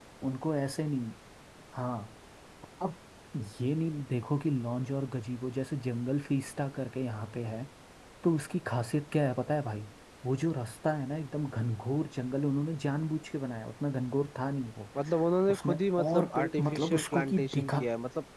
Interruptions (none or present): present